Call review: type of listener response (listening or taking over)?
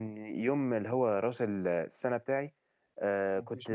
listening